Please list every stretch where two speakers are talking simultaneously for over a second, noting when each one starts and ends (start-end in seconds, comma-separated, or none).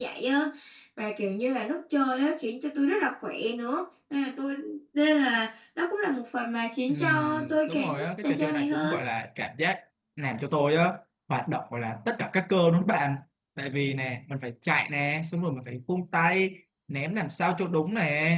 6.9-9.0